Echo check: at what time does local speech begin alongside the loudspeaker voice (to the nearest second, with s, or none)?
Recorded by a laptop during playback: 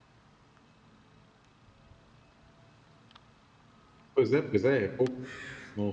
4 s